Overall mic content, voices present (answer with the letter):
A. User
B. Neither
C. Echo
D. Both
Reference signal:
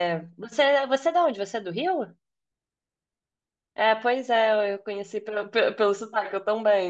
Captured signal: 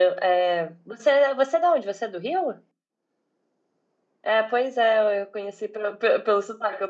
C